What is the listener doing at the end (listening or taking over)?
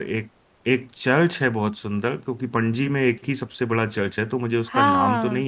taking over